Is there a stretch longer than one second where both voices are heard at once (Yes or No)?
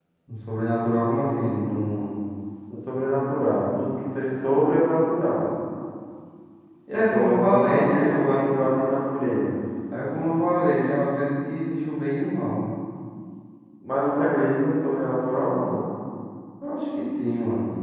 Yes